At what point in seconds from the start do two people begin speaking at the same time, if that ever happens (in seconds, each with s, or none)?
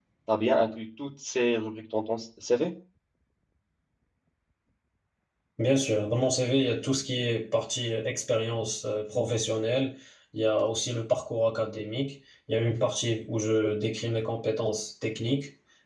none